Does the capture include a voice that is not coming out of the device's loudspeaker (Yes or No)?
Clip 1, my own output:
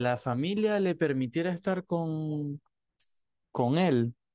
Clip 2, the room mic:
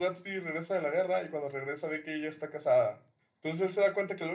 Yes